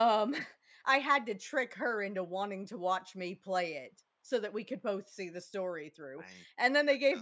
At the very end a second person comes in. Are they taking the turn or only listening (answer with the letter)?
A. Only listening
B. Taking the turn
A